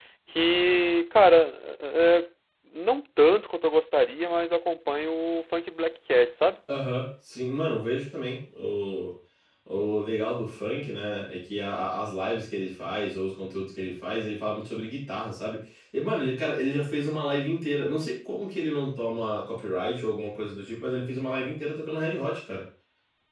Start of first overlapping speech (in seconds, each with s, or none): none